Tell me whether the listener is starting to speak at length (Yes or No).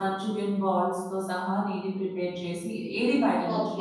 Yes